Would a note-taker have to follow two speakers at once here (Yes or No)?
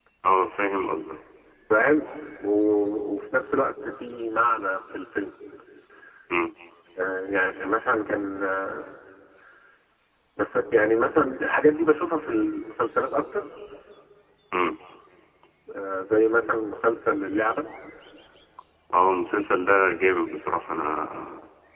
No